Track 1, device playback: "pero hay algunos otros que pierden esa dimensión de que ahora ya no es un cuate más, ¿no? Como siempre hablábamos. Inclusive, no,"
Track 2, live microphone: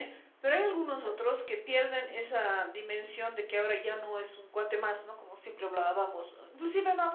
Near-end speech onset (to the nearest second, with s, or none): none